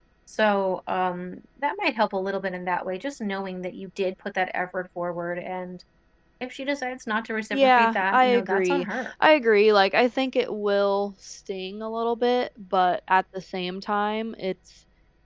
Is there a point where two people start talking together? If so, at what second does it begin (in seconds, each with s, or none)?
7.5 s